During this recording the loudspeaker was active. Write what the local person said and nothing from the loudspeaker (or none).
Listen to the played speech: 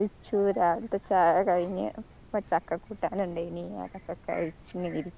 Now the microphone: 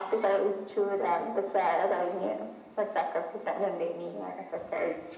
none